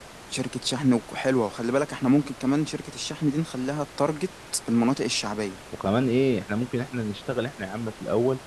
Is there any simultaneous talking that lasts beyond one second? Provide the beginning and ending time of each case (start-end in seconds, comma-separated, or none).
none